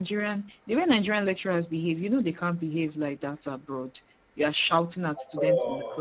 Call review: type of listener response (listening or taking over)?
listening